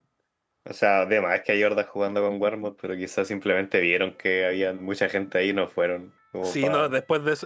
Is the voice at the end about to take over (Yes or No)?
Yes